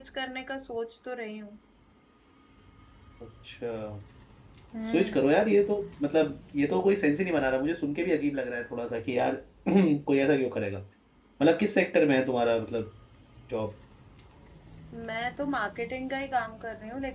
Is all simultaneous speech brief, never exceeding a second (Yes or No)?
Yes